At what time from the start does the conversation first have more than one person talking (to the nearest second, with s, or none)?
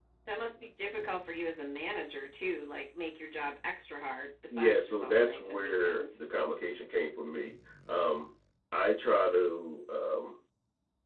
5 s